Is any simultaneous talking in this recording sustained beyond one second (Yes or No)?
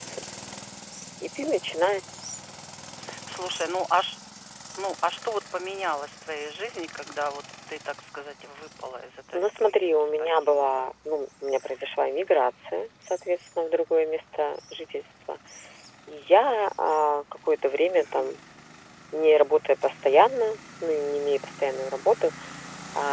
Yes